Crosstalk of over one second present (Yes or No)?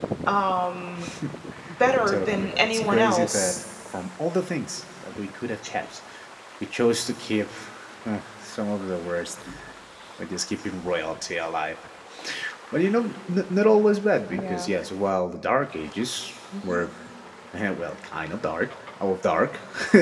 Yes